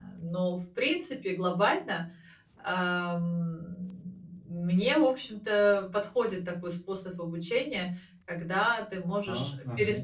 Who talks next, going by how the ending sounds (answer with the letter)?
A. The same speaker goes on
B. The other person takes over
A